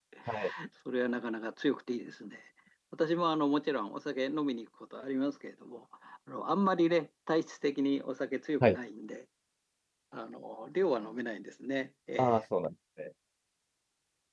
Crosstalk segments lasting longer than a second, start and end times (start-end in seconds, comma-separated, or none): none